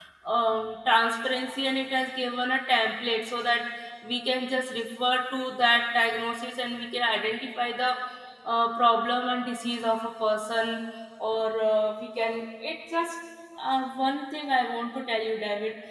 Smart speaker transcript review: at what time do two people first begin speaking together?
none

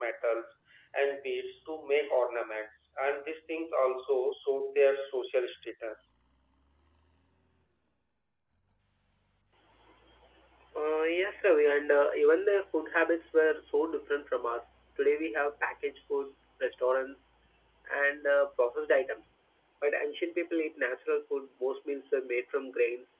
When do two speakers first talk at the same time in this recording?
none

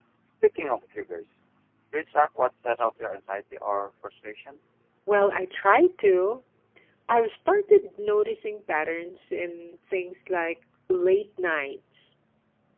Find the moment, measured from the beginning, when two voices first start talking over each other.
none

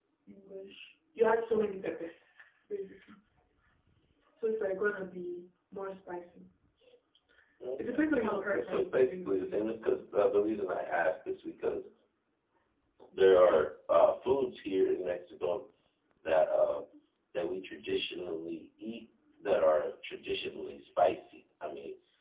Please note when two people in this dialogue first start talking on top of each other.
7.9 s

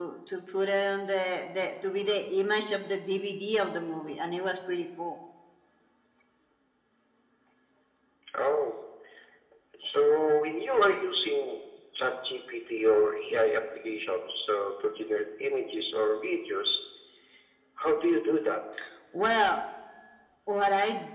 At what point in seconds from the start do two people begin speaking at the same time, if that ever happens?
none

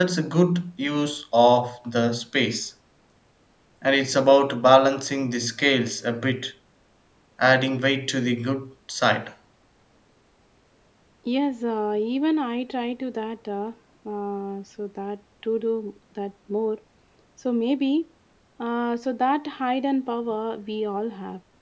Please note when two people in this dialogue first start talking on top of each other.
none

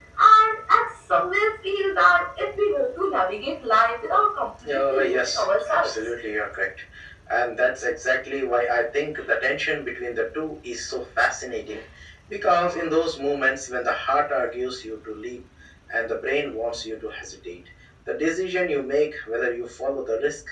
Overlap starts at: 4.7 s

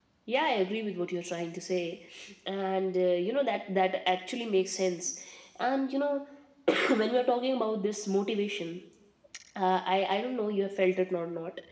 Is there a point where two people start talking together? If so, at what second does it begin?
none

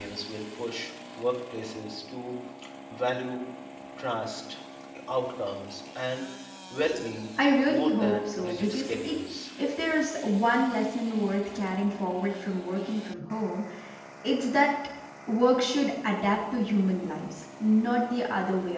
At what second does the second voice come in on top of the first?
7.7 s

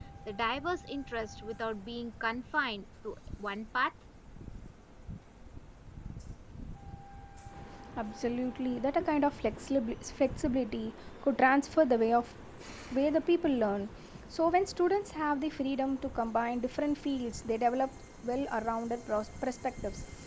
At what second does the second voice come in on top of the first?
none

